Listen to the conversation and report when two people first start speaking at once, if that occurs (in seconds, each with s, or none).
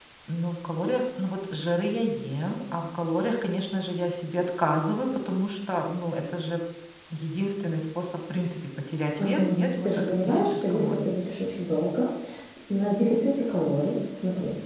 9.2 s